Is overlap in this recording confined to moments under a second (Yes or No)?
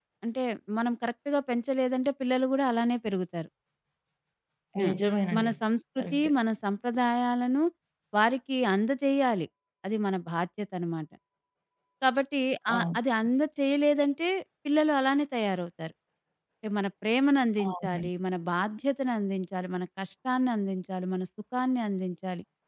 Yes